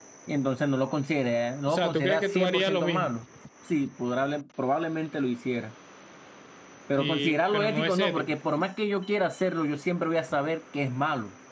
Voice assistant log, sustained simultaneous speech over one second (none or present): present